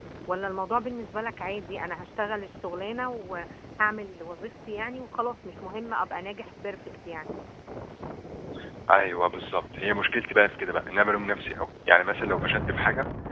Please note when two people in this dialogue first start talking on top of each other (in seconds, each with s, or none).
none